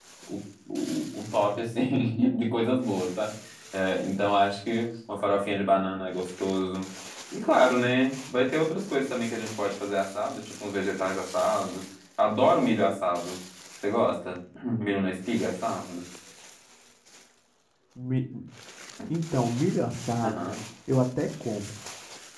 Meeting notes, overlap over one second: none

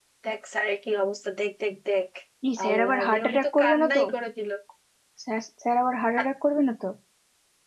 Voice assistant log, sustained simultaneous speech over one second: present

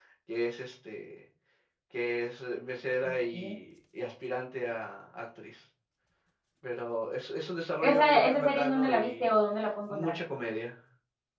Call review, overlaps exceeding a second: present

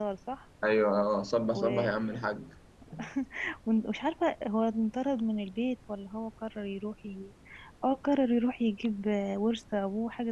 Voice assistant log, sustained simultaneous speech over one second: none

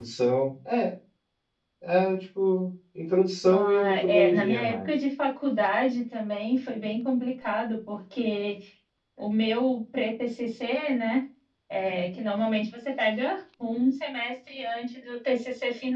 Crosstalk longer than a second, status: present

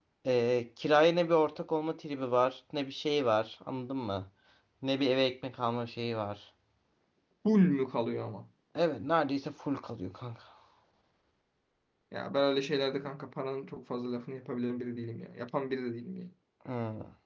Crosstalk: none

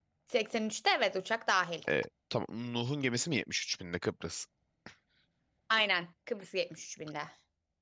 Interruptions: none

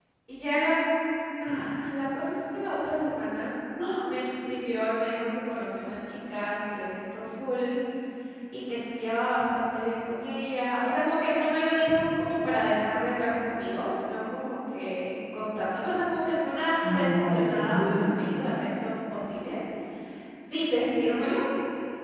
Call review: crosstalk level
present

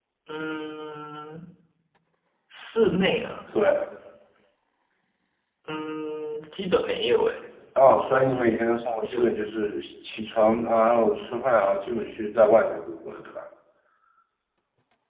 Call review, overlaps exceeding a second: none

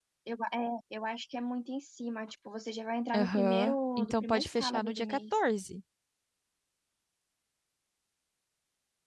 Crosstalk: present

